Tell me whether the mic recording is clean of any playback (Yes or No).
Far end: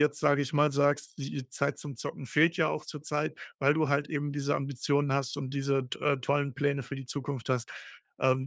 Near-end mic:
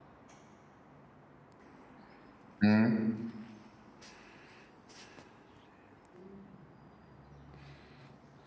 Yes